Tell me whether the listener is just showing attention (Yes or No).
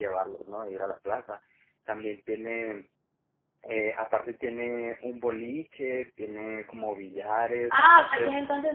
No